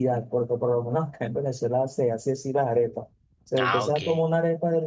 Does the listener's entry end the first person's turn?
No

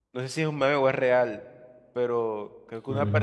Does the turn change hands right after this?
No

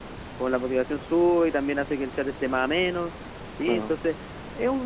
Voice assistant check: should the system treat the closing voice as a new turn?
No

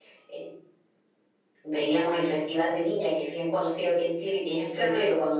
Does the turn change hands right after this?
No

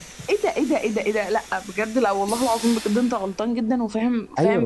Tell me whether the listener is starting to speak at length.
Yes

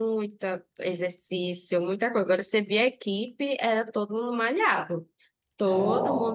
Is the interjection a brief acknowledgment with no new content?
Yes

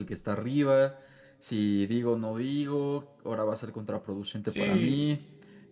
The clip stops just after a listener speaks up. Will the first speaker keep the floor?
Yes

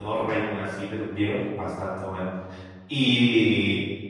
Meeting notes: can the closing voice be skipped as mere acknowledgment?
Yes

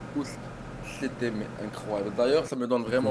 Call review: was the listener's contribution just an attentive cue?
Yes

